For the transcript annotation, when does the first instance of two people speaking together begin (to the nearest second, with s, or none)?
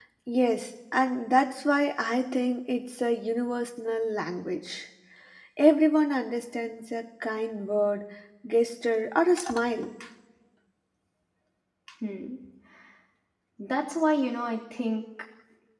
none